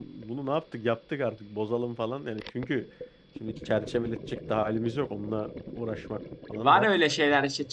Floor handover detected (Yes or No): Yes